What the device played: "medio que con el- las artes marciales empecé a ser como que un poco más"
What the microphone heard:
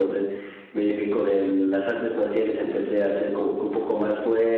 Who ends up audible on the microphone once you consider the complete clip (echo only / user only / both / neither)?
echo only